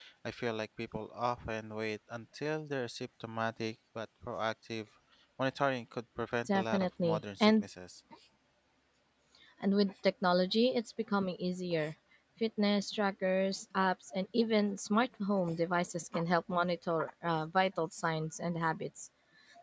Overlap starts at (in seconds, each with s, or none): 6.5 s